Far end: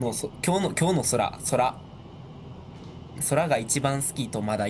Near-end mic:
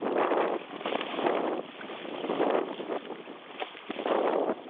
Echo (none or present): none